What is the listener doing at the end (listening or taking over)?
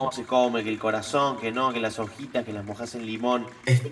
listening